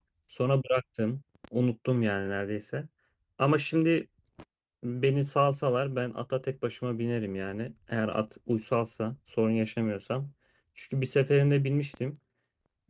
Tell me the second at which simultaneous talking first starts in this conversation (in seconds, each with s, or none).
none